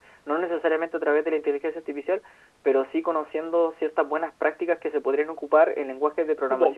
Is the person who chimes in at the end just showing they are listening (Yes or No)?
No